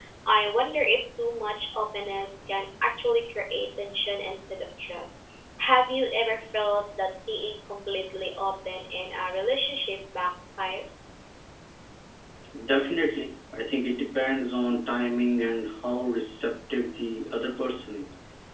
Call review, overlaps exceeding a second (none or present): none